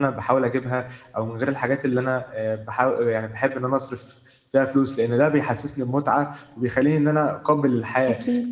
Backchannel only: Yes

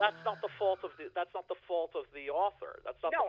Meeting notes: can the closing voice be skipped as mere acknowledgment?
No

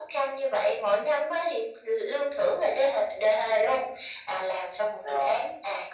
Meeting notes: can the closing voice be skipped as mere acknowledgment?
Yes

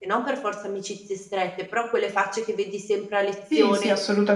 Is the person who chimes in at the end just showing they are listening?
No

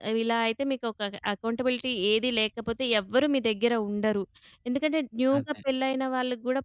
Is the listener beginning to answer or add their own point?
No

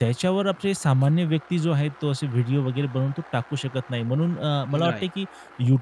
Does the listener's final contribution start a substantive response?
No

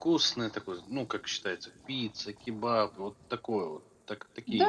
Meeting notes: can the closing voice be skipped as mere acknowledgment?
No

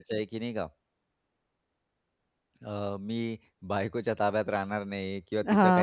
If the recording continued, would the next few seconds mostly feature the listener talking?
No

